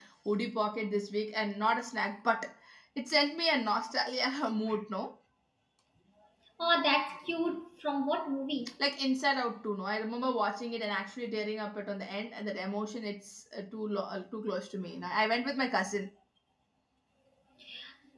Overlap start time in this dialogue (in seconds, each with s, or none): none